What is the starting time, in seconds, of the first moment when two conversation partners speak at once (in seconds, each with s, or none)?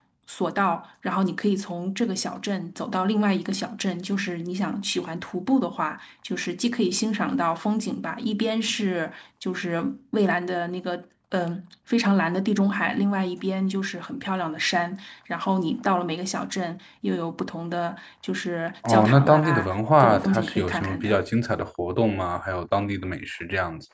18.8 s